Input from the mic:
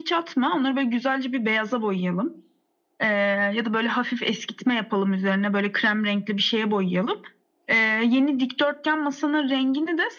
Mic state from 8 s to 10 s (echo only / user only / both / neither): echo only